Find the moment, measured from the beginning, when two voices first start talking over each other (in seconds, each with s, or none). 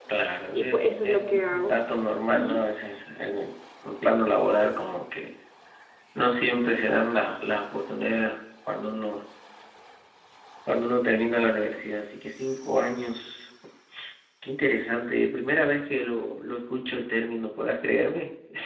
0.5 s